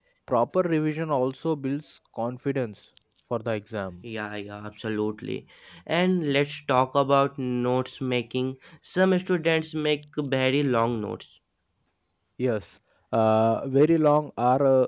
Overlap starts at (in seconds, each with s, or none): none